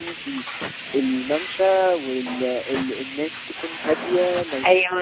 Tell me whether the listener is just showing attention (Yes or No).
Yes